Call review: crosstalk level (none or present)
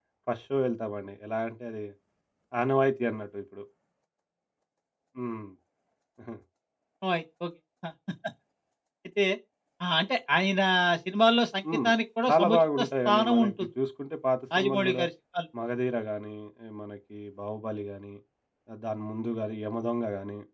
present